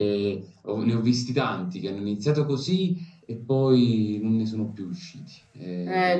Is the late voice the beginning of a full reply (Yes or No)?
Yes